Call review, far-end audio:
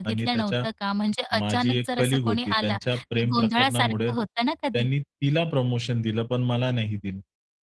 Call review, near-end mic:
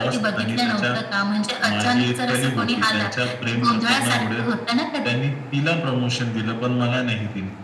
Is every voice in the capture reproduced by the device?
Yes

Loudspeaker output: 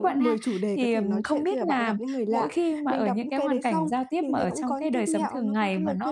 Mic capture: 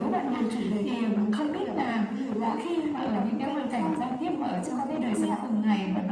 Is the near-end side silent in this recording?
Yes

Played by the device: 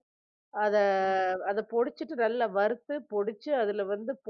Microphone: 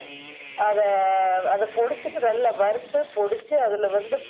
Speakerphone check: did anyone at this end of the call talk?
No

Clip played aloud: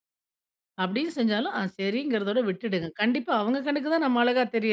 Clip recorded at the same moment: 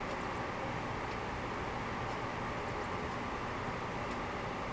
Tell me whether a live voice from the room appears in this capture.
No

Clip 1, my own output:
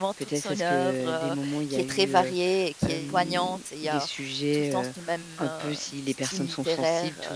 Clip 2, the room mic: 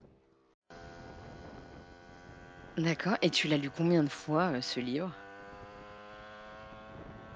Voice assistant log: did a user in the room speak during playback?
Yes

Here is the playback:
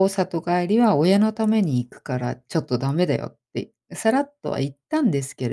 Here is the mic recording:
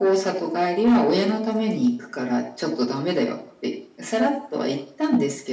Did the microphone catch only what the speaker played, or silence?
Yes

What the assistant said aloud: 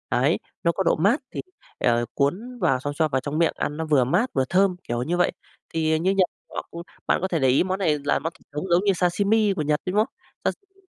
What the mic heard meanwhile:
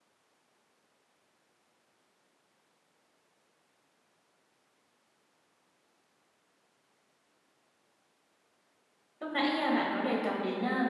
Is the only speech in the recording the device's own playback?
No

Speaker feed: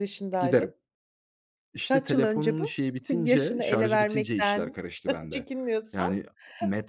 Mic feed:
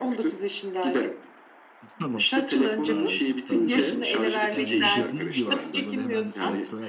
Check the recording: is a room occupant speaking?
Yes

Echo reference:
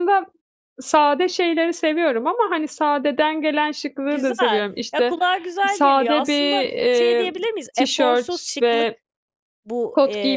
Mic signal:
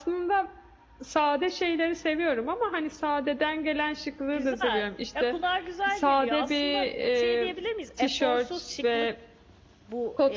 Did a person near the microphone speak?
No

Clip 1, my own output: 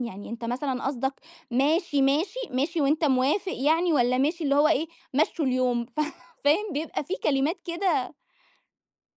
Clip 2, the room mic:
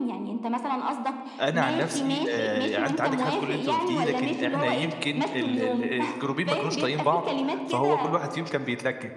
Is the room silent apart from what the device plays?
No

